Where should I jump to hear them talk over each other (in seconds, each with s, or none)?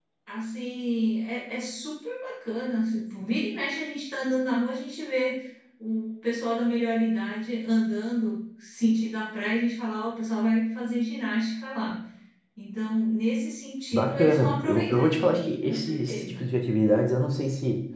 13.9 s